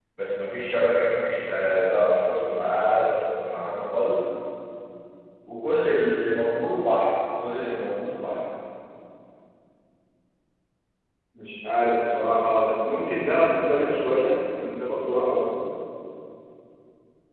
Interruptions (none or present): none